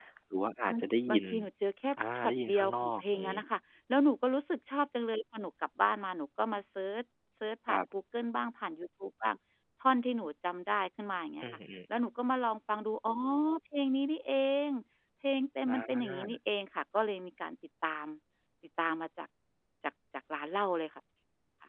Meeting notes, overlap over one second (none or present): present